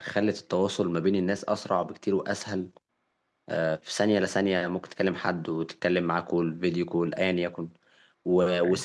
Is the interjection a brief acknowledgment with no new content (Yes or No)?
Yes